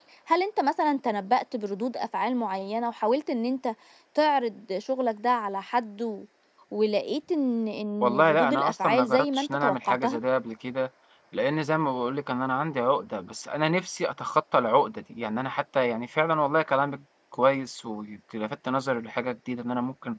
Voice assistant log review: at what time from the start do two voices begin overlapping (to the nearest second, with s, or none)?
8 s